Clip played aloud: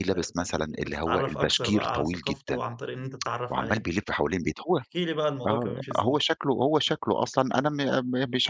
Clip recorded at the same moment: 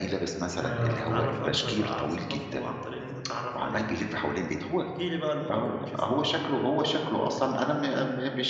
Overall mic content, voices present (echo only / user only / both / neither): both